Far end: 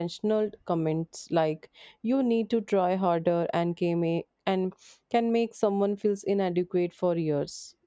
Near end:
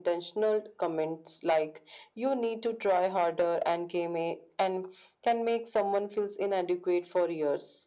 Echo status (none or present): present